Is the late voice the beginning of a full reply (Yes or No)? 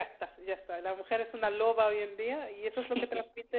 No